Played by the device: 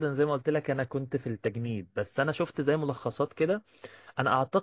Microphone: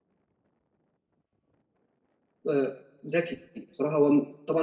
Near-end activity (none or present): present